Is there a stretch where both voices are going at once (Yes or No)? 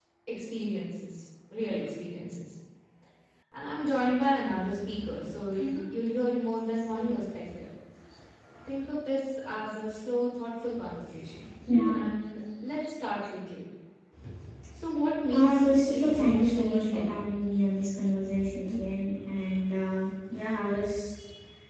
Yes